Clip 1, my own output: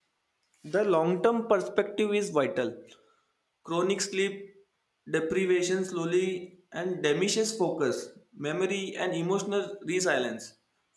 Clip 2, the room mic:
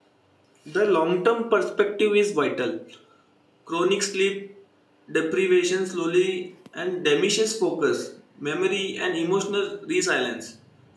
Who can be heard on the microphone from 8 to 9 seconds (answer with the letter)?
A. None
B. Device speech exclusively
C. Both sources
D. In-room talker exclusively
B